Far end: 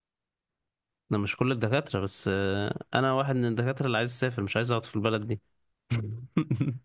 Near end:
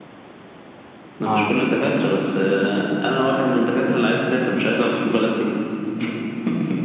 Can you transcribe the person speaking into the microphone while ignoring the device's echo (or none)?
اه